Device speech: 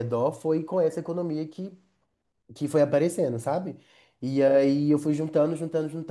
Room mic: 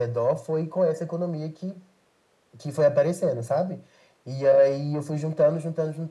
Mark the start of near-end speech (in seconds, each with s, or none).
none